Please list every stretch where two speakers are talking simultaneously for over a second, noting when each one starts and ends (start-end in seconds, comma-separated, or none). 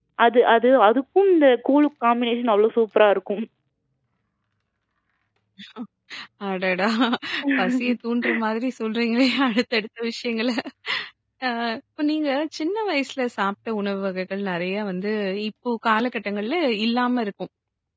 none